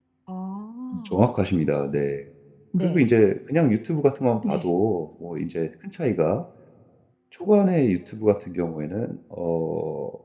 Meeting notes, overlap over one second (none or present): none